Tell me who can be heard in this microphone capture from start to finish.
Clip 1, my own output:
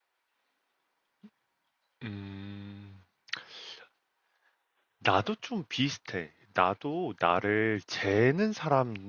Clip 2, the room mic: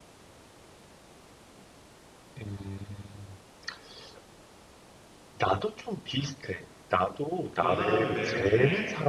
both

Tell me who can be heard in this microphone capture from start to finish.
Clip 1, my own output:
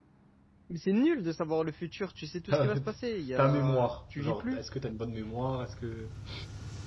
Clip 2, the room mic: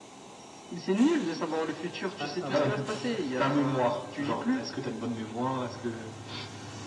both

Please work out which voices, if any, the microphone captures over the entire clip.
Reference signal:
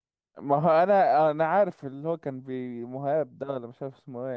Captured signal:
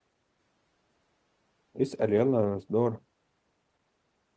user only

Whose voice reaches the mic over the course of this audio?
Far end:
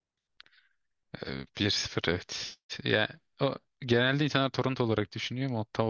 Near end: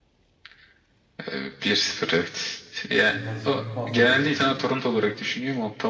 both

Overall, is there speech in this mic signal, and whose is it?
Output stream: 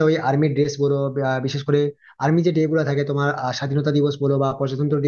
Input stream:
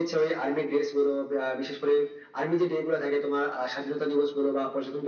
echo only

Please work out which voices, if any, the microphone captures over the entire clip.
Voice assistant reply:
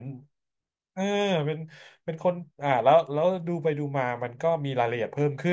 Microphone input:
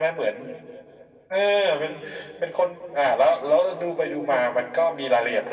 echo only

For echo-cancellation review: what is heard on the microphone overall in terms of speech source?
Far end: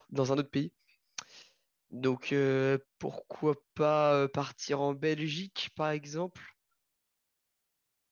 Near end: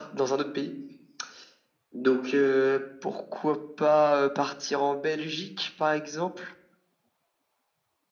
echo only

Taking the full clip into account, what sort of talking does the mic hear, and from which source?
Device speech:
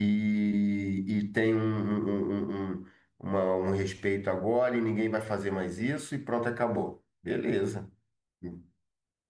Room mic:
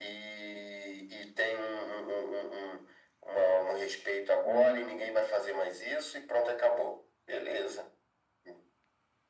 both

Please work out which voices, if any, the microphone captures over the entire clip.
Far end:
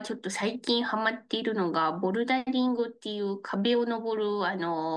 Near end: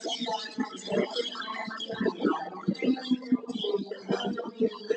echo only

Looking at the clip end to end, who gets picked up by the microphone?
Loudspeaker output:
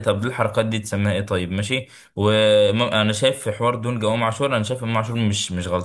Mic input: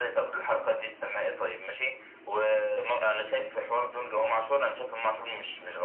echo only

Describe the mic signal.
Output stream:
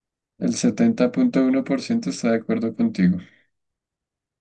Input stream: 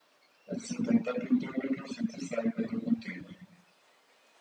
echo only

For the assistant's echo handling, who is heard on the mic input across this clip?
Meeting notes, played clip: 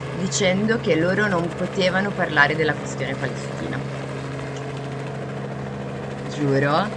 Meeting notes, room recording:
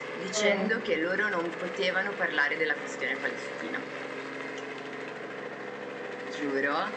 both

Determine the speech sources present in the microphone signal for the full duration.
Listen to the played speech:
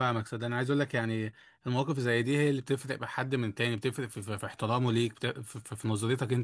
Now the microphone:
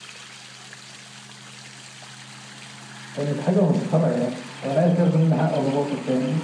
user only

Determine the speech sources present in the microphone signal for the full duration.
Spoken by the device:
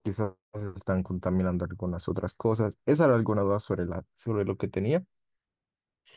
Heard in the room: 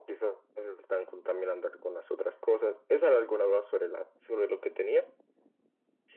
echo only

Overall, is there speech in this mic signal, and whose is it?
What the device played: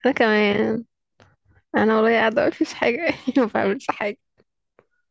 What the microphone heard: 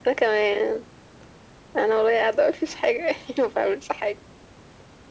echo only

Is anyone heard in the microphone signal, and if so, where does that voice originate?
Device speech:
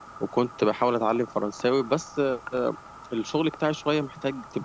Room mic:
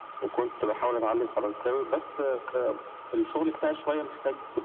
echo only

